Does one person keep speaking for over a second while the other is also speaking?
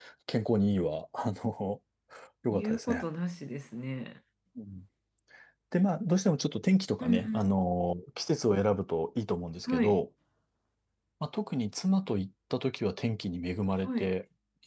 No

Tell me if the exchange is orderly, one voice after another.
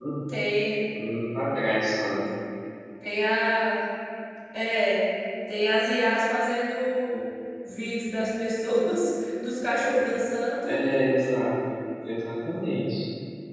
Yes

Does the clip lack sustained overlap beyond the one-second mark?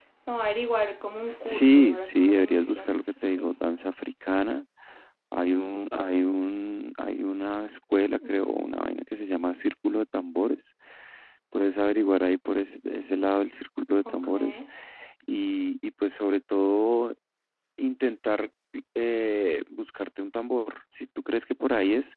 No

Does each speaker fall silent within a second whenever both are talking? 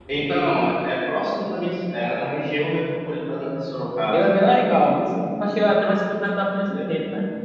Yes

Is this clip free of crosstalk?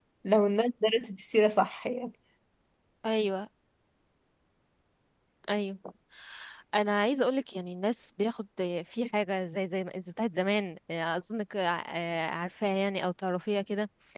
Yes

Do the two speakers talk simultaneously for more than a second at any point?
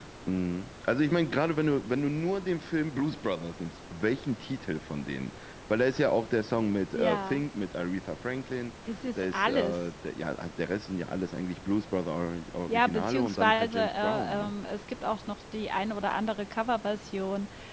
Yes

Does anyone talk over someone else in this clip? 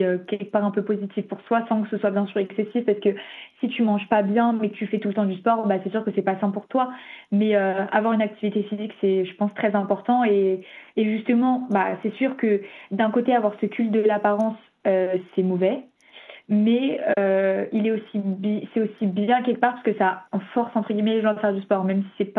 No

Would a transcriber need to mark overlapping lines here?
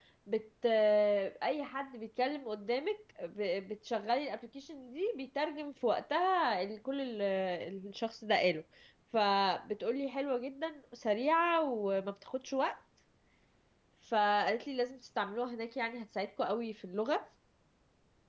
No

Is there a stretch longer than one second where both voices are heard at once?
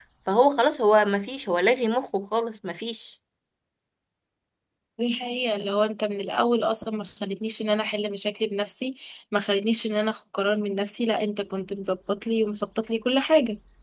No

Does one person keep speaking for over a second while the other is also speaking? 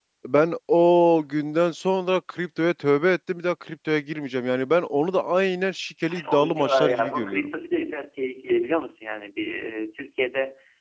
Yes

